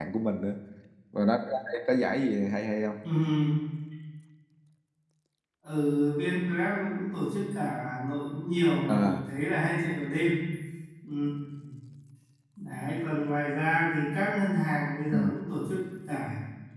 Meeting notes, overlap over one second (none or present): none